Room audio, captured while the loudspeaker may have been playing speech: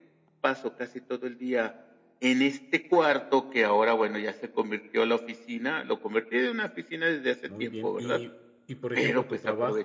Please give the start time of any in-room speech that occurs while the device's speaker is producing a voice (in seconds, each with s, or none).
7.5 s